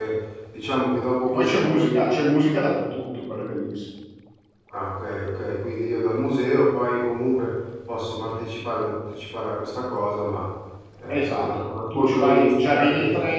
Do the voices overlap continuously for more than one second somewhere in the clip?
Yes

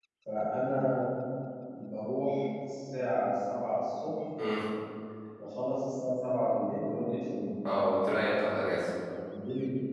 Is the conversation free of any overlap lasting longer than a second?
Yes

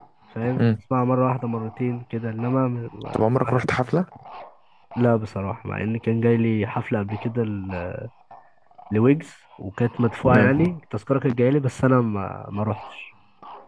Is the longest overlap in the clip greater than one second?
No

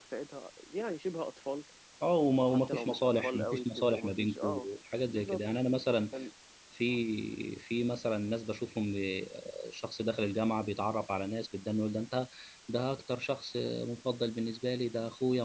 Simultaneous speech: Yes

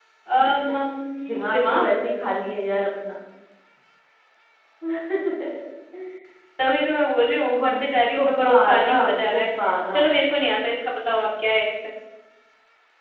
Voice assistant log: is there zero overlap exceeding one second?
No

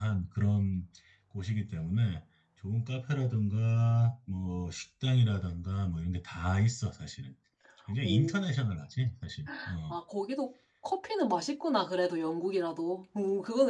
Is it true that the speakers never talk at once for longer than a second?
Yes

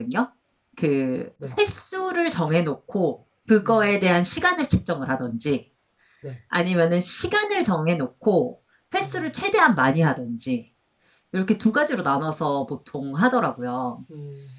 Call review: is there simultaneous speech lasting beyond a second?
No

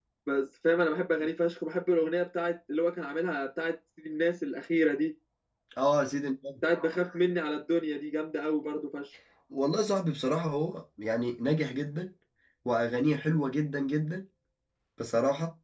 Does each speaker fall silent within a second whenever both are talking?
Yes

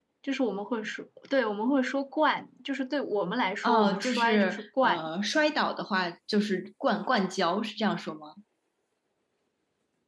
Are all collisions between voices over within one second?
No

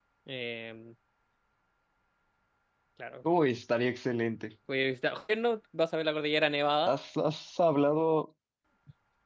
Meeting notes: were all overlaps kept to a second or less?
Yes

